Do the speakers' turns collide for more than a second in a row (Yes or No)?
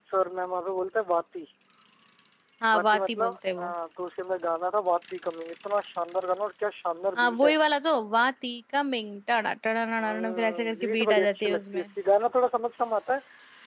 Yes